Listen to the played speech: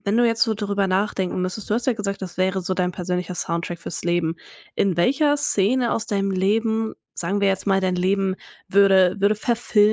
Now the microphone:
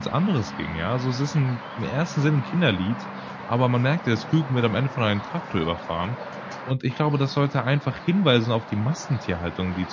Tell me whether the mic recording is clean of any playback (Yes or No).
Yes